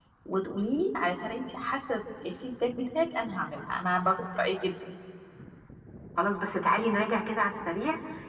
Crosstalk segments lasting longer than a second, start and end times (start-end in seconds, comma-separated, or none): none